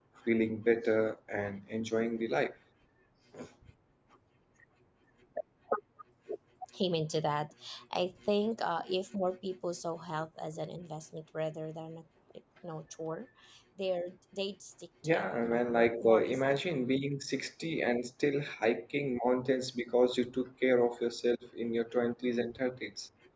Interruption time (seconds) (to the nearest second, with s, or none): 15 s